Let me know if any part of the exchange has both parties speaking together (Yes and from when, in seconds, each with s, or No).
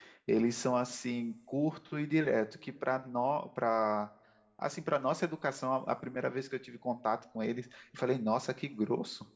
No